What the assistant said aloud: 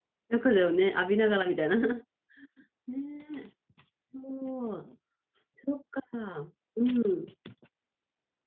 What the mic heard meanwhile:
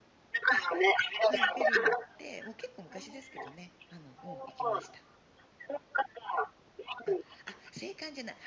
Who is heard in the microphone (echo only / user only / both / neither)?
both